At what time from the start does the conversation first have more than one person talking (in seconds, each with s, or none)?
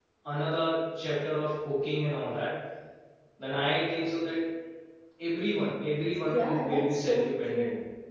6.2 s